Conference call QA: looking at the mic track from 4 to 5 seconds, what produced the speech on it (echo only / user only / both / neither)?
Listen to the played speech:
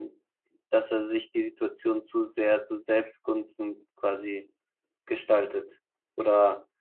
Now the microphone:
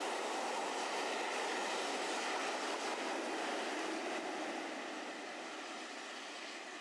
neither